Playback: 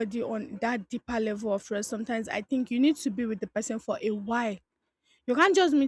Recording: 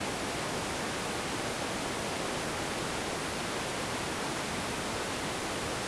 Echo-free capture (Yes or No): Yes